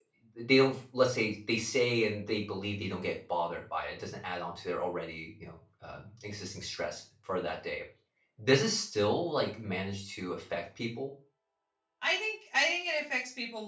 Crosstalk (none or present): none